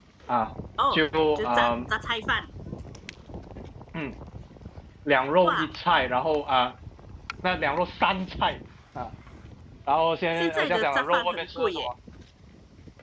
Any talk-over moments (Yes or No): Yes